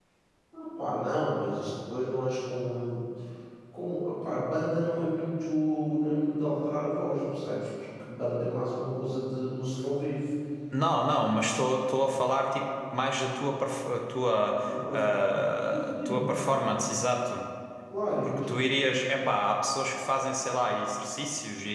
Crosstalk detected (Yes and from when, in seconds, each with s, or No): Yes, from 14.9 s